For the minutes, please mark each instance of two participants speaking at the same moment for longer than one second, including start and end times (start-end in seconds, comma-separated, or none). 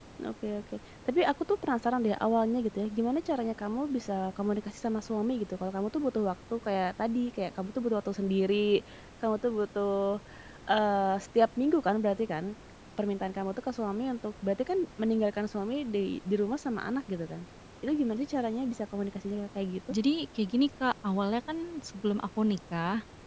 none